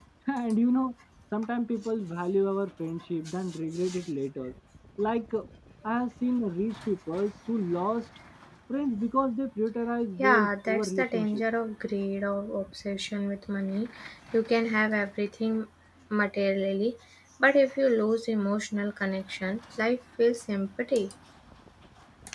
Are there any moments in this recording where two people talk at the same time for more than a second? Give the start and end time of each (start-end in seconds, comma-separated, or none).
10.2-11.4